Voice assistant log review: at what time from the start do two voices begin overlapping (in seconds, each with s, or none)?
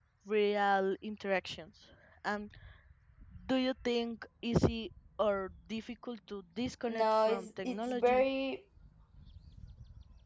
6.9 s